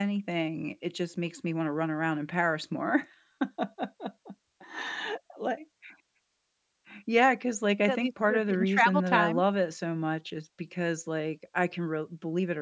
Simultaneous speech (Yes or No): Yes